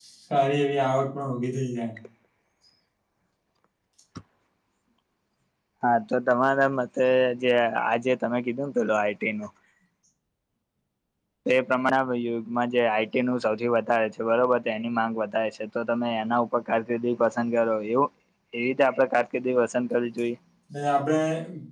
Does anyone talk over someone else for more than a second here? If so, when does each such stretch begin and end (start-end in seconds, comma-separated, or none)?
none